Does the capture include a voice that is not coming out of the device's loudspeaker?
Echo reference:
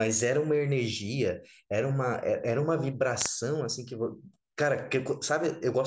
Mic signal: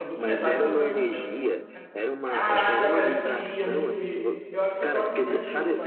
Yes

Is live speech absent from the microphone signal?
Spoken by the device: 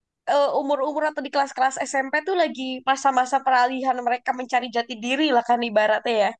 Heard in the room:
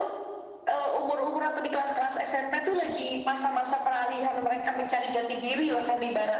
Yes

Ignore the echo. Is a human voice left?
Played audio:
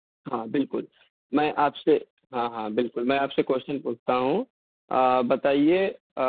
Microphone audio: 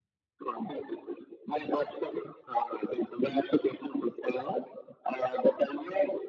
No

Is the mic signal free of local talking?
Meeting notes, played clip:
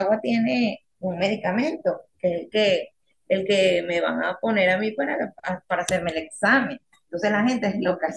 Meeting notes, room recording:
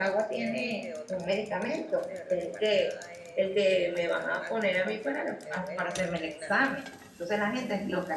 No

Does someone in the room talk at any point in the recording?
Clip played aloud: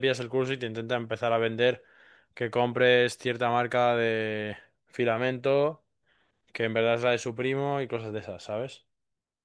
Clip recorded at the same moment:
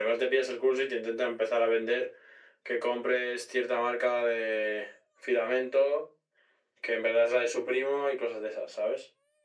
No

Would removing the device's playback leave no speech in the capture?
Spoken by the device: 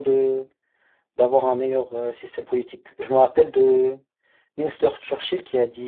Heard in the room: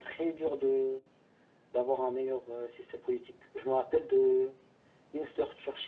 Yes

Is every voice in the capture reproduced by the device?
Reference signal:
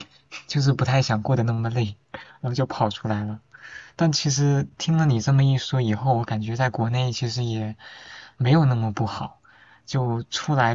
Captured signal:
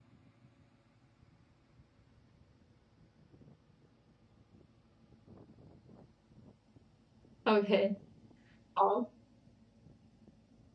No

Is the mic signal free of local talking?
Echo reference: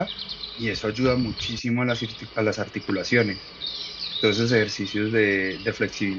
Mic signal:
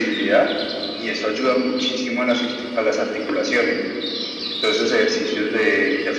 Yes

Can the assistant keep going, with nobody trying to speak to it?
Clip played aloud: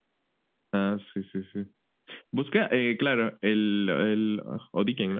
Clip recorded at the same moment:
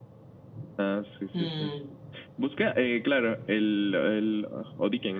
No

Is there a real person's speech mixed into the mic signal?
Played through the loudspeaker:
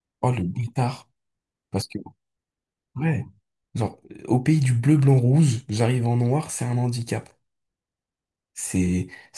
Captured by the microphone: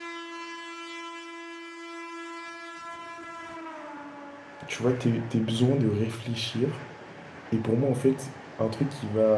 Yes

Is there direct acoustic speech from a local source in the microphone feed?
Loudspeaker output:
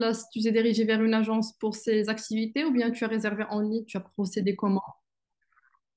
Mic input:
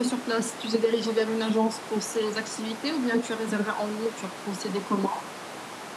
No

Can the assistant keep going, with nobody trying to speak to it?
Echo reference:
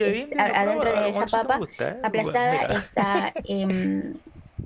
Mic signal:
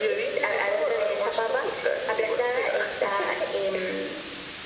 Yes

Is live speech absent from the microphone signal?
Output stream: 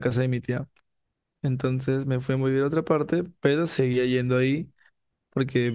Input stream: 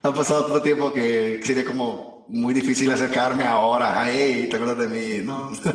No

